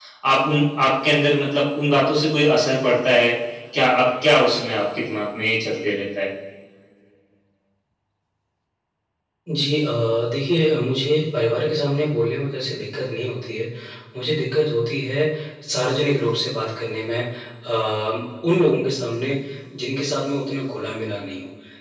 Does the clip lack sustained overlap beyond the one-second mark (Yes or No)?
Yes